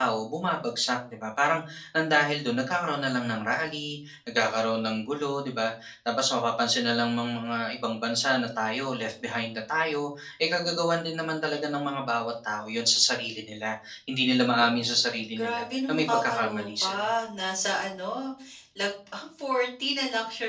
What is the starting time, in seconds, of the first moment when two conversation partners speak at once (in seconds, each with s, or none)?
14.6 s